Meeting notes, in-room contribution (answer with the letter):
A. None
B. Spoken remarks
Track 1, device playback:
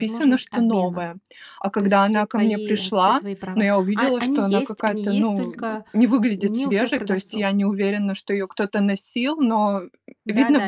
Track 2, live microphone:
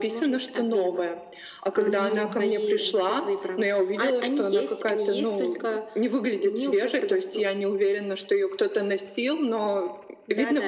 B